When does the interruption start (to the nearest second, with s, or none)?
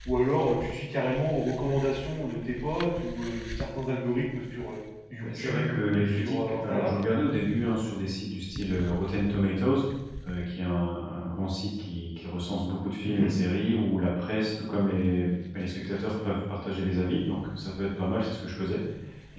5 s